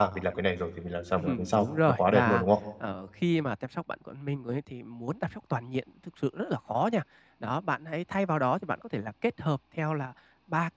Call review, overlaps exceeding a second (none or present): present